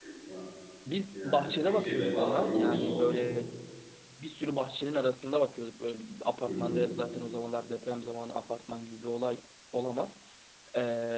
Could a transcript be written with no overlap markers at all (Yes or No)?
No